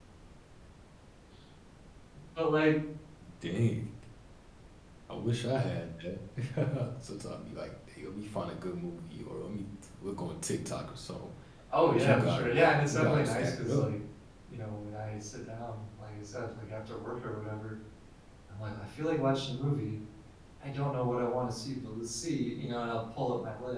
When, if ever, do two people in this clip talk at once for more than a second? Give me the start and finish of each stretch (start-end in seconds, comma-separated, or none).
11.9-13.8